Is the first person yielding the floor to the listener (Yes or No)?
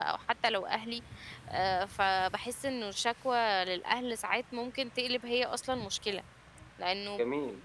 No